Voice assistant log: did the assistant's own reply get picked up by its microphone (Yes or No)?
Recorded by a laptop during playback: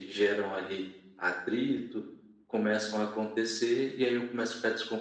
Yes